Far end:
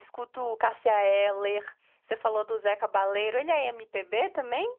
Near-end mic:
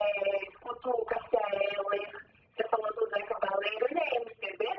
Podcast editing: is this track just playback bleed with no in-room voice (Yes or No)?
Yes